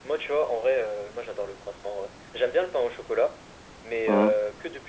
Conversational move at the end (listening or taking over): listening